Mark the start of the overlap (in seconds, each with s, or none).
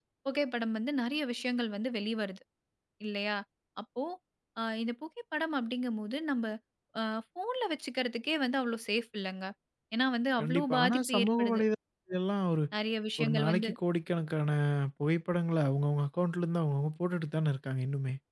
10.4 s